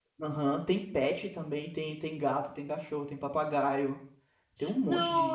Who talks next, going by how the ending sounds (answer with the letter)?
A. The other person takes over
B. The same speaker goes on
A